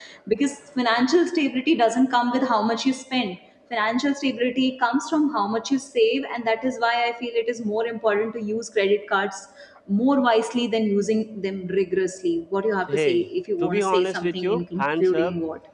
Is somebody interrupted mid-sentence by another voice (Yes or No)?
Yes